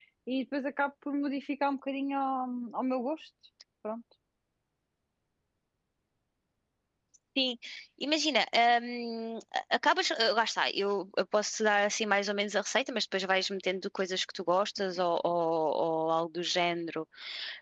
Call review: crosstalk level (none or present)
none